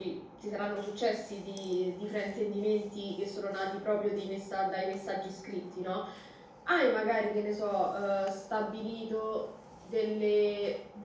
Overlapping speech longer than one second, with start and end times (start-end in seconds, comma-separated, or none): none